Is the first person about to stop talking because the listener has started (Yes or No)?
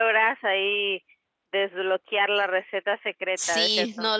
Yes